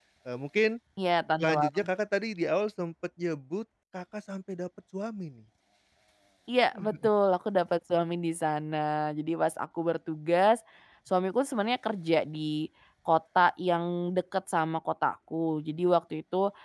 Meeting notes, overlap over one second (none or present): none